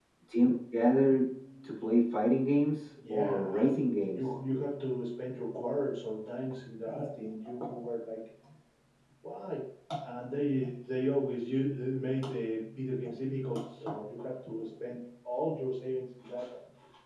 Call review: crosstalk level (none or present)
present